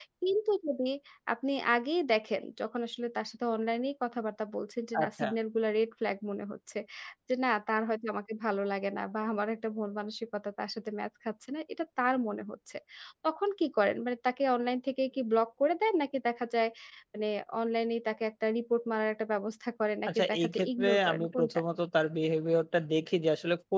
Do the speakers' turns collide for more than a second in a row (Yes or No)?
Yes